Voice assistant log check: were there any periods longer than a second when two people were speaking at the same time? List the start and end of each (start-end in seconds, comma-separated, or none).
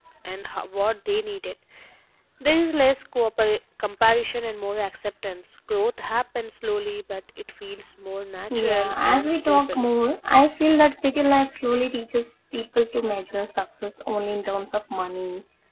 8.5-9.9